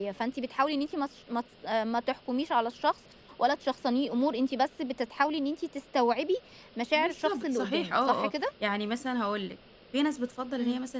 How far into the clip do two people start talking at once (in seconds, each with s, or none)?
6.9 s